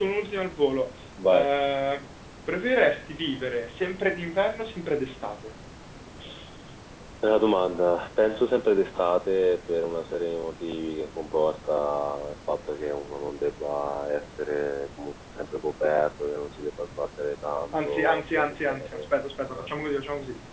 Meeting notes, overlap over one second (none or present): present